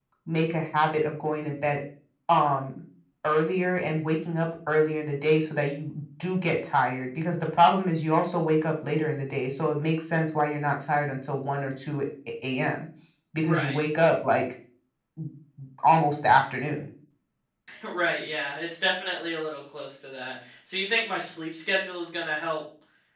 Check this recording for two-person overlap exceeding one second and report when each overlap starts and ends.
none

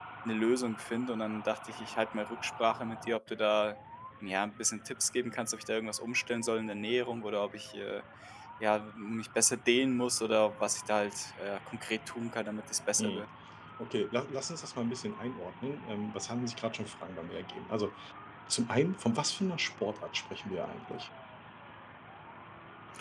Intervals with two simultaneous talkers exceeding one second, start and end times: none

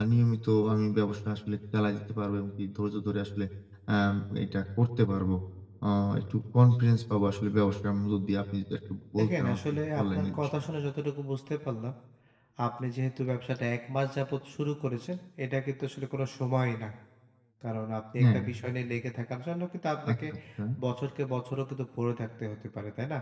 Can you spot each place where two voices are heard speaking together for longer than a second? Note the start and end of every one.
9.2-10.7

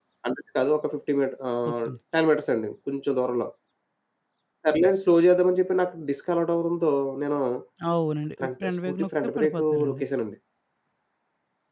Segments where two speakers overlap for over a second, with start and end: 8.4-10.0

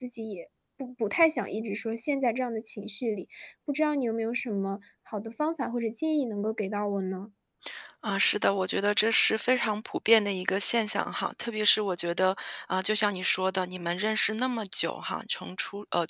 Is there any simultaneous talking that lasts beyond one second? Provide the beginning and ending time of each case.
none

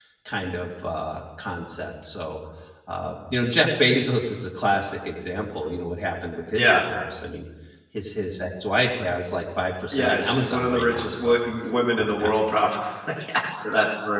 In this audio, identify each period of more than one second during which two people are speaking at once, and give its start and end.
9.9-11.4

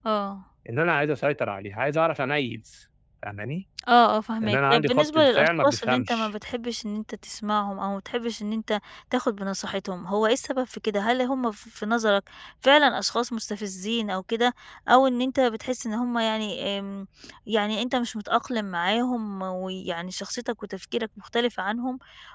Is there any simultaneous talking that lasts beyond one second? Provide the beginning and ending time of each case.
4.4-6.3

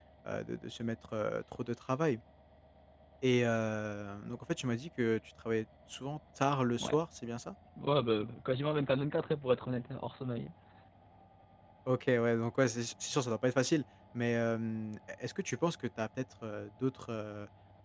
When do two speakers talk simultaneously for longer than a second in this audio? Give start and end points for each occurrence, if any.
none

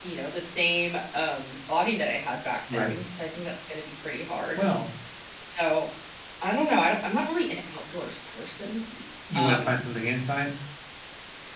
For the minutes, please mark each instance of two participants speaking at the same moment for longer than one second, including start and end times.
none

